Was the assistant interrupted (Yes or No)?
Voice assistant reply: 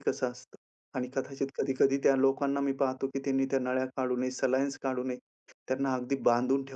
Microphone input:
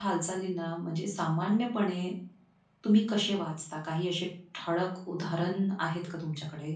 Yes